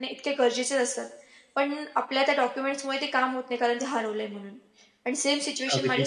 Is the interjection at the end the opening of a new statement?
No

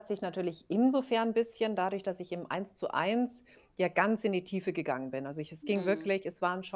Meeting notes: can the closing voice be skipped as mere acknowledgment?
Yes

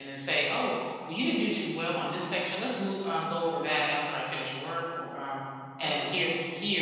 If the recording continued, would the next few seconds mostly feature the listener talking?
No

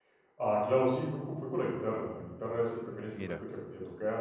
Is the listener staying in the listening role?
Yes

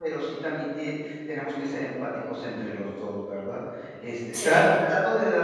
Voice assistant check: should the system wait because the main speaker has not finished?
Yes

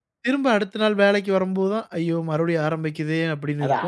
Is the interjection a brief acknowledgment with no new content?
No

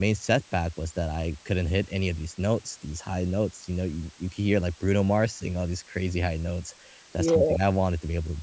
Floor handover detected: No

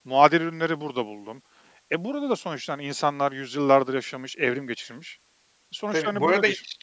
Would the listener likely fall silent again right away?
No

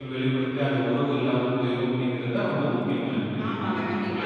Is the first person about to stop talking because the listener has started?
Yes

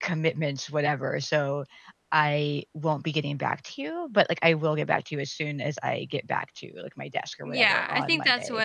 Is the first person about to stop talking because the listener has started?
Yes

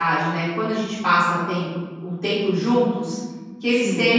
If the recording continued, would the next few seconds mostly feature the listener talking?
No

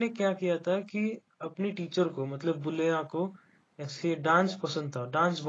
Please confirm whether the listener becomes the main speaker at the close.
No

